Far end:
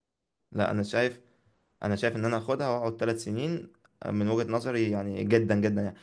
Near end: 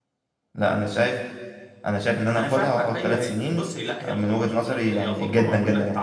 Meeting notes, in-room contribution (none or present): present